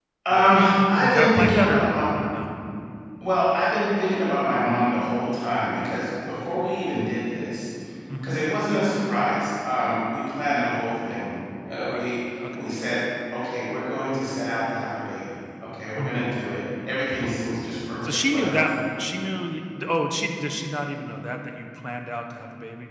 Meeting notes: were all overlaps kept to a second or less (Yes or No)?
No